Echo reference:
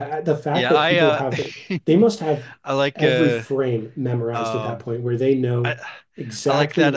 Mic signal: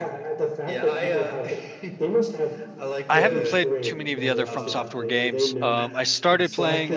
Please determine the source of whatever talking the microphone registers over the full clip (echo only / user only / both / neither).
both